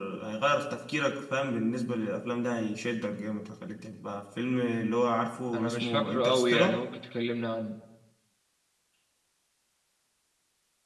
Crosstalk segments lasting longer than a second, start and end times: 5.5-6.8

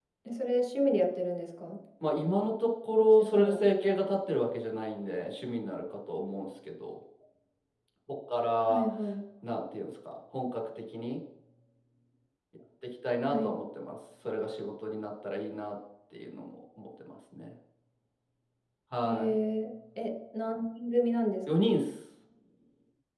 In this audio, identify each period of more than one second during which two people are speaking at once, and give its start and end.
none

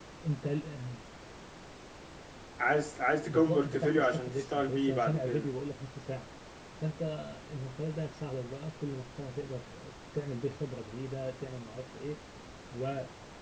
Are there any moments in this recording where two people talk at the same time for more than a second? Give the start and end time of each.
3.3-5.5

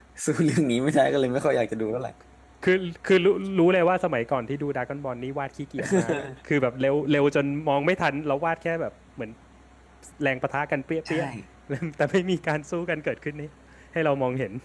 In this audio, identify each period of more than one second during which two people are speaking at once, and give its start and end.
none

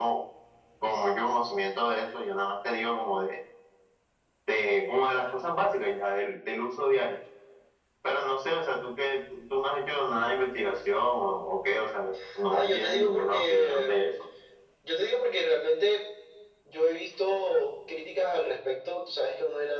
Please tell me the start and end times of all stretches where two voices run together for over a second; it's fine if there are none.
12.5-13.9

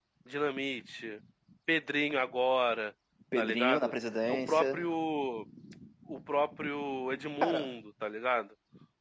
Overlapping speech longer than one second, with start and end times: 3.4-4.8

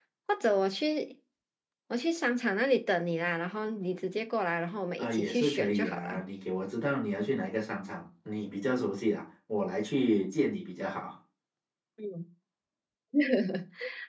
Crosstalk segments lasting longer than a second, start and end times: 5.0-6.2

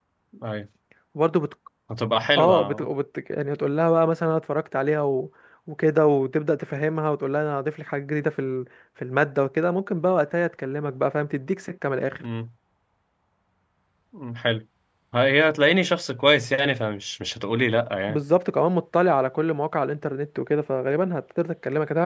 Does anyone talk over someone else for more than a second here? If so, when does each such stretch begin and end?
none

